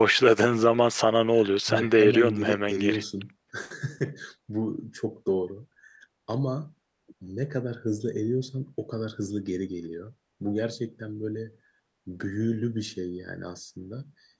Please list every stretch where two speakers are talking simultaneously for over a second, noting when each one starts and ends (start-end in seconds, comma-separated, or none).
1.7-3.0